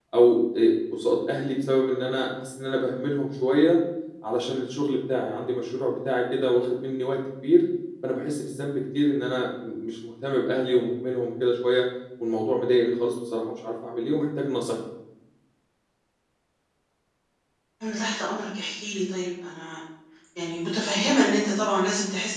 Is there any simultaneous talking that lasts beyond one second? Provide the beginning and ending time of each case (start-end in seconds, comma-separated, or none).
none